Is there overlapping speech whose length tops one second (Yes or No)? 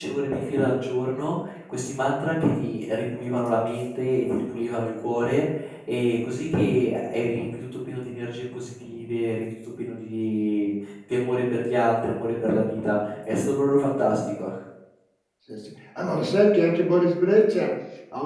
No